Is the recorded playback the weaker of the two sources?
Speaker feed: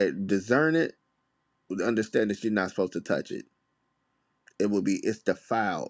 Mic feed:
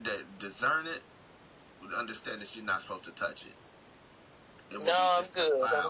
Yes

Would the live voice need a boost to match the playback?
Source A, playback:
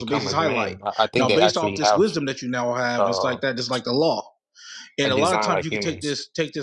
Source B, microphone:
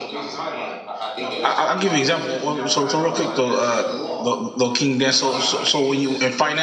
No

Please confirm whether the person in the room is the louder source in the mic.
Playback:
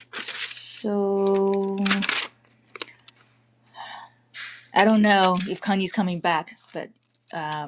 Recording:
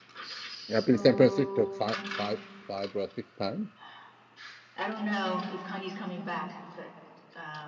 Yes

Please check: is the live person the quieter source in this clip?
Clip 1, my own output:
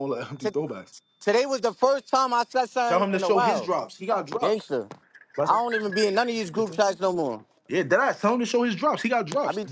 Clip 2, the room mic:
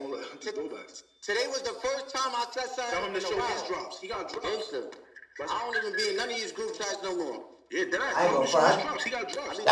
No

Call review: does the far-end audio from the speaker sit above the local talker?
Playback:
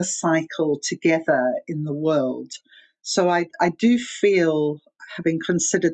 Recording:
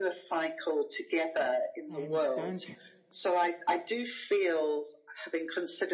Yes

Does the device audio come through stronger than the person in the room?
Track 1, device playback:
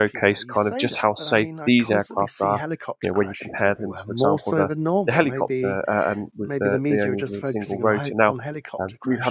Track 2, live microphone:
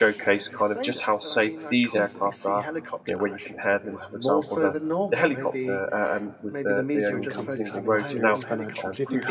Yes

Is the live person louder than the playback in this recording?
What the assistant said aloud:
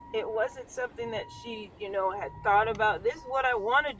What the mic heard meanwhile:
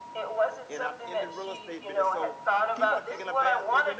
No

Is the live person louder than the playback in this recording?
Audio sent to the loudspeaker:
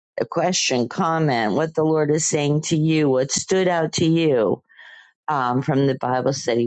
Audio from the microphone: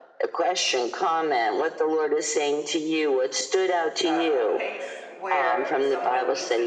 No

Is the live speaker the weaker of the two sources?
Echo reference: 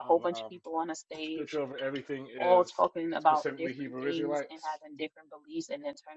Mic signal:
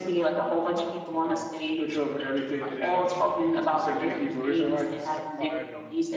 Yes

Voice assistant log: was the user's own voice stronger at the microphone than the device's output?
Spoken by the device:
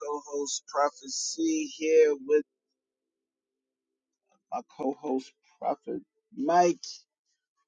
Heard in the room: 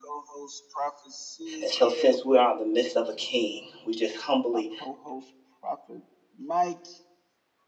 Yes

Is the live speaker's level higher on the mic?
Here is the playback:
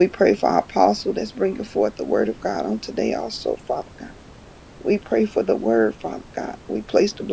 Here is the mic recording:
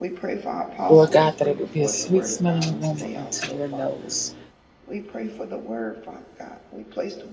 Yes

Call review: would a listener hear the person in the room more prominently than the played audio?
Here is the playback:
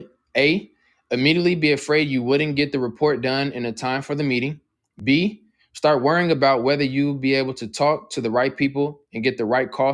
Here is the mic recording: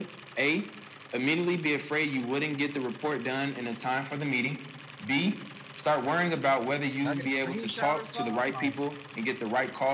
No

